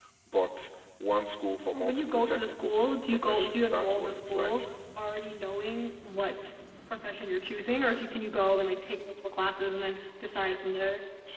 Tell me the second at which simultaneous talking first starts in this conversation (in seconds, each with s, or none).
1.7 s